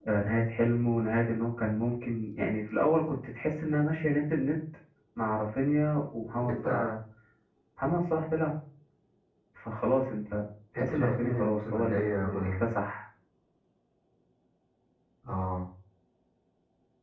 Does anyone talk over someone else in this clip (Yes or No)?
Yes